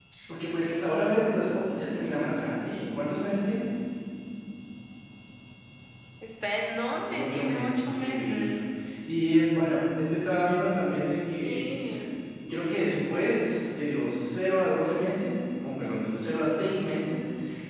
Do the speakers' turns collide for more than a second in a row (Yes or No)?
Yes